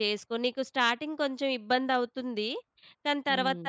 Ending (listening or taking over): listening